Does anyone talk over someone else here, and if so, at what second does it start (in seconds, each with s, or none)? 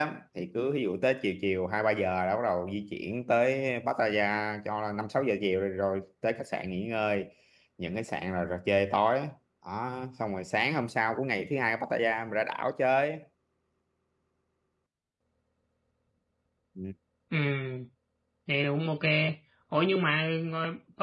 none